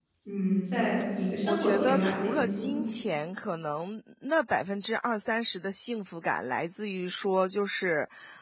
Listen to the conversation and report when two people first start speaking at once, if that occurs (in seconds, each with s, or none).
1.4 s